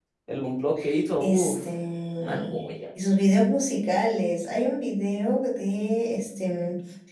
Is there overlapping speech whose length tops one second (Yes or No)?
No